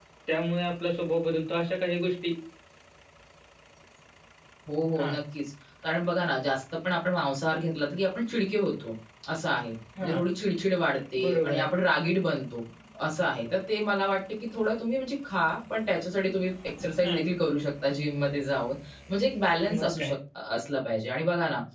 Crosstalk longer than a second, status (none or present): none